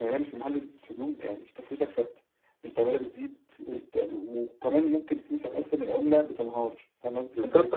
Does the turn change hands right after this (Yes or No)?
Yes